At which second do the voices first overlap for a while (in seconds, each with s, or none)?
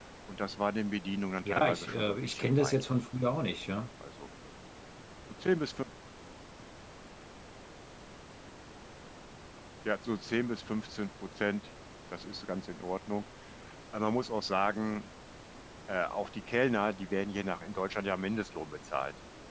1.4 s